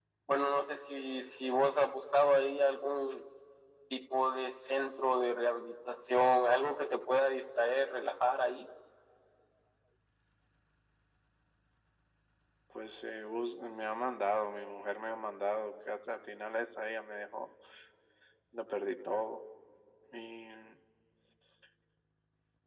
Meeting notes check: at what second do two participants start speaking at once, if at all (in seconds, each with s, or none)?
none